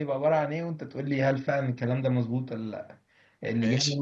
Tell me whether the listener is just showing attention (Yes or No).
Yes